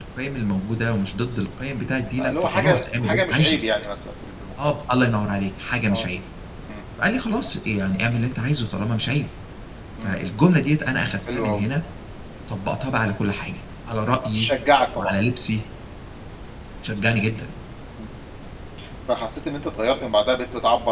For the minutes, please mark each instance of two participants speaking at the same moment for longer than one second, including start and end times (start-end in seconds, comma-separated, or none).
2.2-3.6